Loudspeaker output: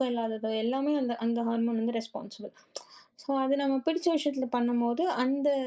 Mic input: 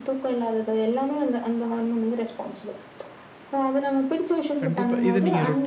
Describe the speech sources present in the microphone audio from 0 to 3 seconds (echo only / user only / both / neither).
echo only